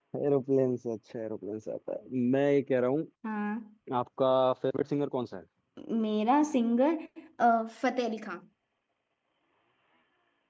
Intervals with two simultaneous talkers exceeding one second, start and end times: none

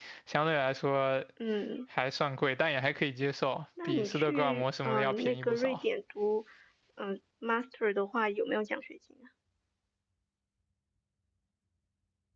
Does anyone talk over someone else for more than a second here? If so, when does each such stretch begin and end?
3.8-5.8

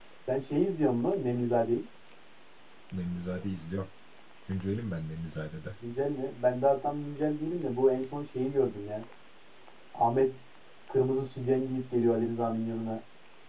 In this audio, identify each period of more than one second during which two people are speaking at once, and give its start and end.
none

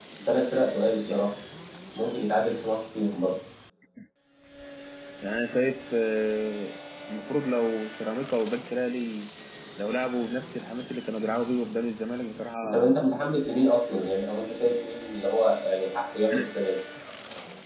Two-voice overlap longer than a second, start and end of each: none

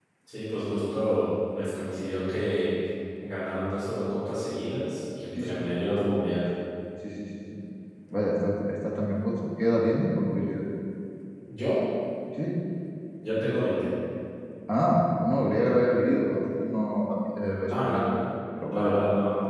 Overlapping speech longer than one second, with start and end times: none

